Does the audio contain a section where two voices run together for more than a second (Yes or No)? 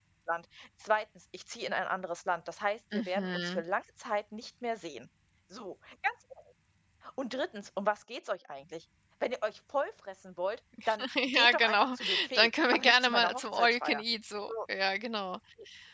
Yes